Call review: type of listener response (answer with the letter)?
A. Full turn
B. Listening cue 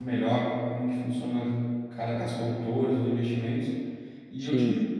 B